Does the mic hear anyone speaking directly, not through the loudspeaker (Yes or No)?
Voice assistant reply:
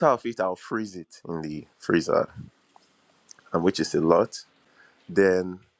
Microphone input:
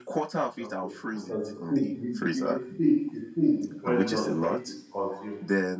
Yes